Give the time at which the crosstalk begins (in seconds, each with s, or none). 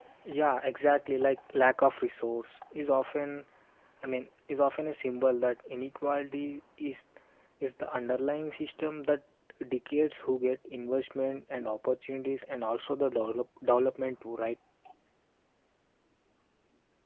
none